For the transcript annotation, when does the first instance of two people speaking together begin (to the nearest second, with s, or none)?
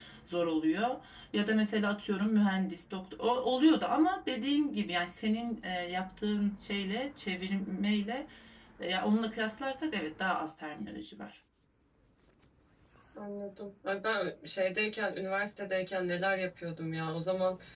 none